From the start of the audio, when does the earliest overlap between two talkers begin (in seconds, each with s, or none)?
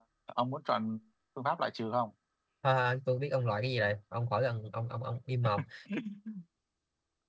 none